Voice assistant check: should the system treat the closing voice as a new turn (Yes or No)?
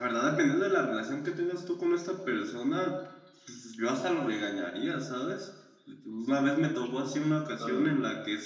No